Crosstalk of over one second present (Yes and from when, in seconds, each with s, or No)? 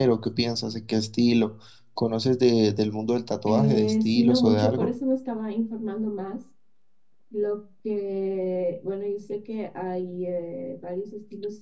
Yes, from 3.5 s